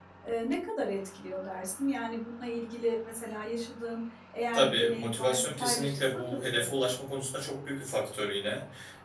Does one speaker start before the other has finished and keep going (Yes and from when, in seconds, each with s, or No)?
Yes, from 4.5 s